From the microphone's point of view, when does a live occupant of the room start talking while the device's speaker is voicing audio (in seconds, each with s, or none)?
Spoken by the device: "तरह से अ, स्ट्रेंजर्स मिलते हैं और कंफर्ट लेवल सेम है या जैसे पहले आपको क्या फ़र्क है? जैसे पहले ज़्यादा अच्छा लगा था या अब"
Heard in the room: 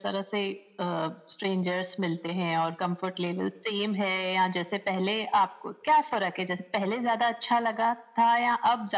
none